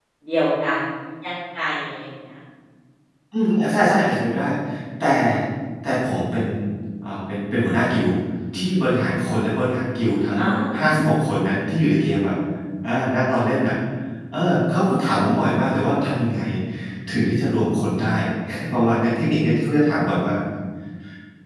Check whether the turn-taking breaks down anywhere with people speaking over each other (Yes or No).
No